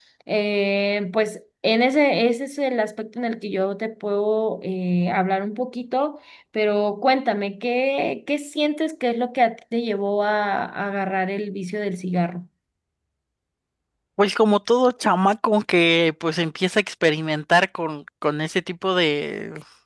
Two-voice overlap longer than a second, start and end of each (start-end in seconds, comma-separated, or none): none